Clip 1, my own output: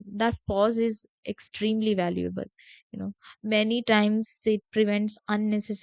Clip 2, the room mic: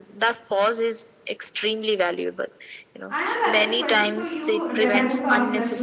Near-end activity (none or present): present